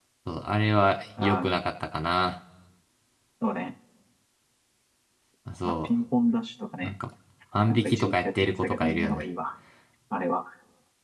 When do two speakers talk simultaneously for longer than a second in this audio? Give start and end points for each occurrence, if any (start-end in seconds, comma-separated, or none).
7.7-9.2